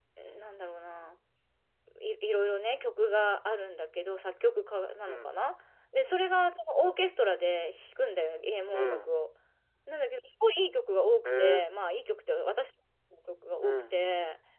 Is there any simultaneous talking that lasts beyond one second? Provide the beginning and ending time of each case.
none

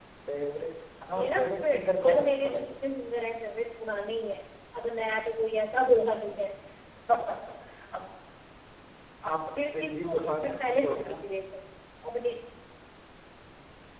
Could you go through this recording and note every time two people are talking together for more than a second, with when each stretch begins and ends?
1.1-2.7, 9.6-11.2

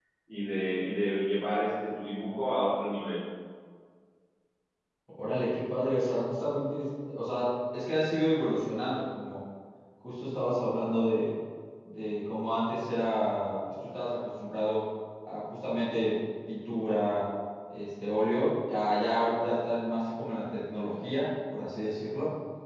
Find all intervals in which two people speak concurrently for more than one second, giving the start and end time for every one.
none

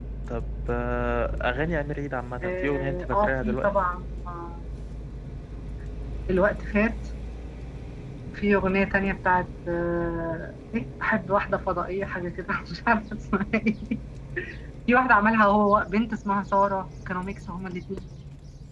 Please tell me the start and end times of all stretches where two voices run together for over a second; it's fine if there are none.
2.4-3.7

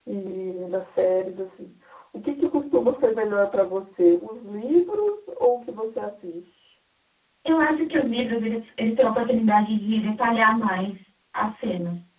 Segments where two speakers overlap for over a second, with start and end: none

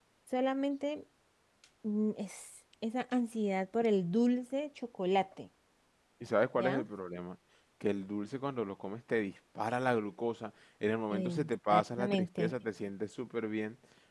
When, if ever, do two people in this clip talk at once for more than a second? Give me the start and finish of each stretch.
11.1-12.5

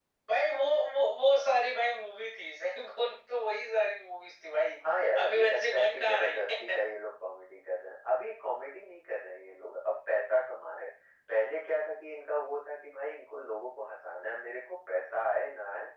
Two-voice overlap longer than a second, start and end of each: 5.2-6.8

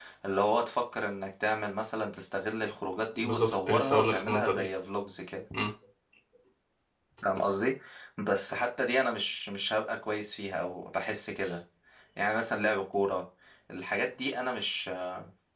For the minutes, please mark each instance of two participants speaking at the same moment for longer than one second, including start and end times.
3.2-4.7

